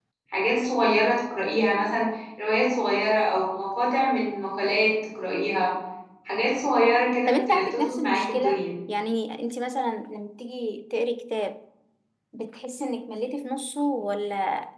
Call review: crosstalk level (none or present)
present